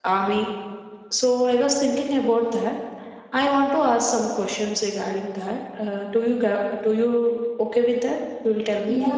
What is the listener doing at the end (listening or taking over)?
taking over